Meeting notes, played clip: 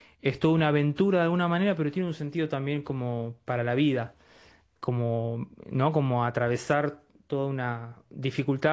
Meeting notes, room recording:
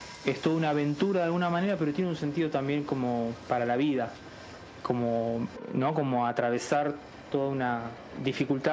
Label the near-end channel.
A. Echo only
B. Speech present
A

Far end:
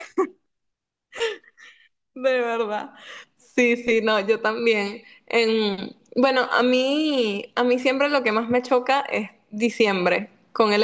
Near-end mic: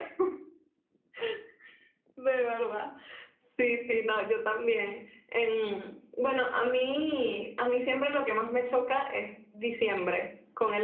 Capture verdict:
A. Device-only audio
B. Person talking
A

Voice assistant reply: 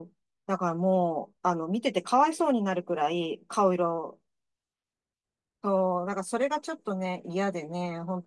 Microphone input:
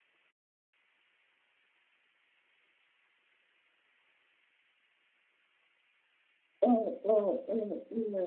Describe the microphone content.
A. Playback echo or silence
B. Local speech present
B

